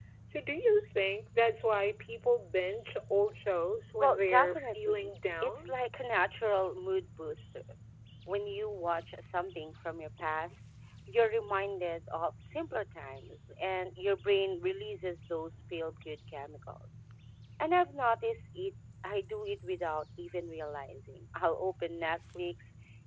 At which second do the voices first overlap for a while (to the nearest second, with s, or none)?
4 s